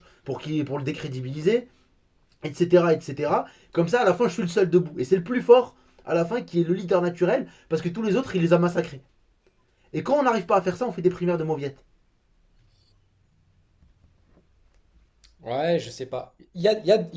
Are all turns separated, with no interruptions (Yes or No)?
Yes